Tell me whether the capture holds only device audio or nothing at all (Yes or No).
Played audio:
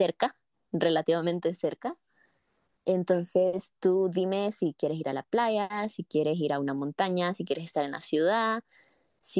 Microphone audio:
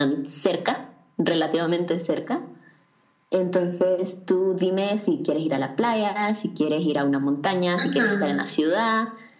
No